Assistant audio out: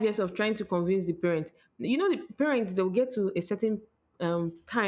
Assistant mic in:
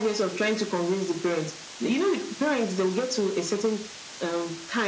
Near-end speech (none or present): none